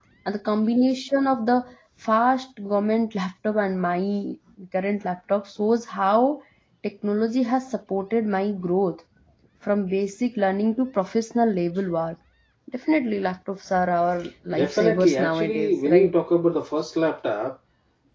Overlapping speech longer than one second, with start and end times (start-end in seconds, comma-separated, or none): 14.5-16.1